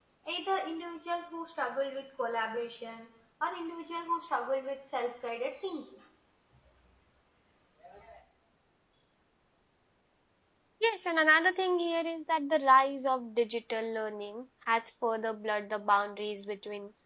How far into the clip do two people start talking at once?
none

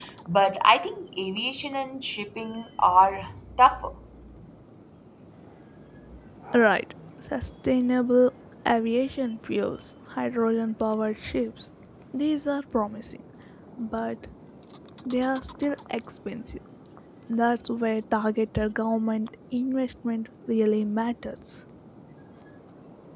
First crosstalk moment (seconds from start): none

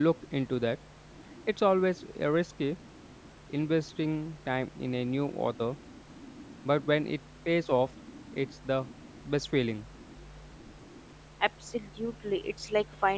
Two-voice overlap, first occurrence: none

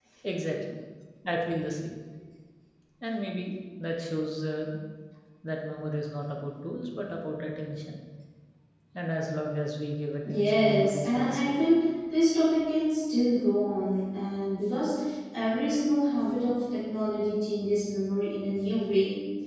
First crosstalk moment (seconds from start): 10.2 s

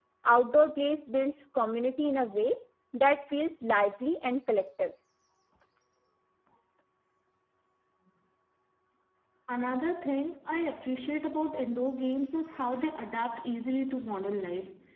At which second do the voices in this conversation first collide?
none

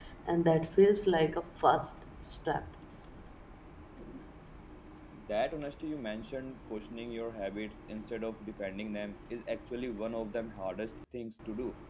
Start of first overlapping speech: none

